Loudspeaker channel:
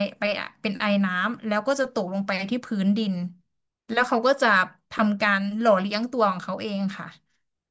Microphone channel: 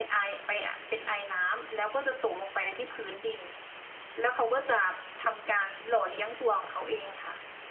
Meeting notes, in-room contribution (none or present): none